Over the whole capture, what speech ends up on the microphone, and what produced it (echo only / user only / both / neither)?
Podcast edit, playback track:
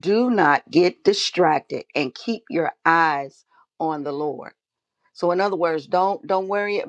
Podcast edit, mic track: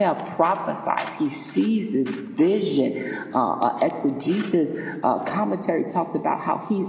user only